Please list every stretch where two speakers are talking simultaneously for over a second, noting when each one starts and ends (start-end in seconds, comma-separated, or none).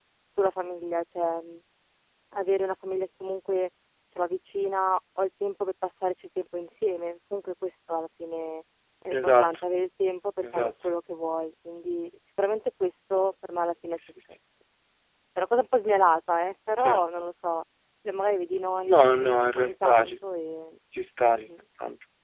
18.9-20.1